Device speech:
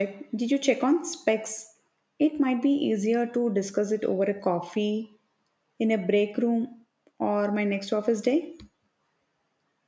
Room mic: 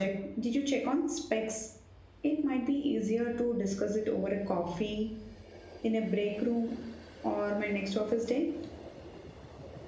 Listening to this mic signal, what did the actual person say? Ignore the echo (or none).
none